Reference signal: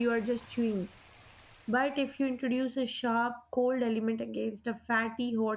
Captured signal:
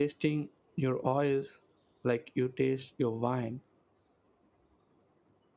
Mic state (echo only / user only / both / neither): user only